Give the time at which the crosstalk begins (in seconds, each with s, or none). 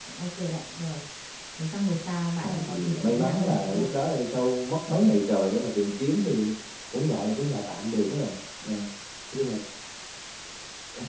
2.4 s